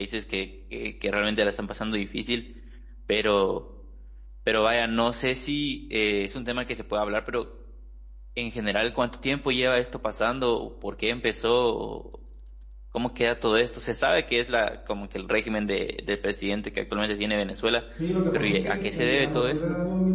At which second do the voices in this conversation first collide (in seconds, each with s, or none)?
18.3 s